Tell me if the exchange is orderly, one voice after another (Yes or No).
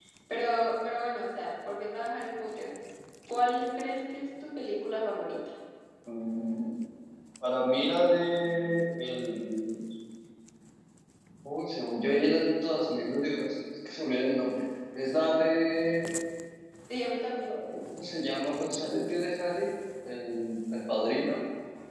Yes